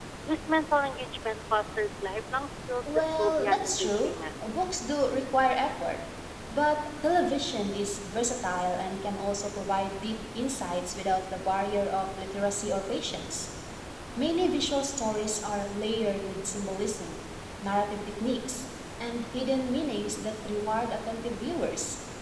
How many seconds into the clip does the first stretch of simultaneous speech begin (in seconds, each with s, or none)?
2.8 s